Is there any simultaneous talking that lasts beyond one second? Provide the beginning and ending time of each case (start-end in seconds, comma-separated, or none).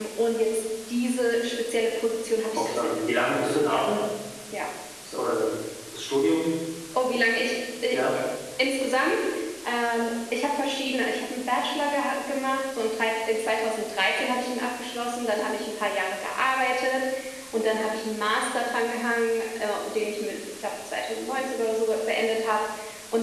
2.5-3.9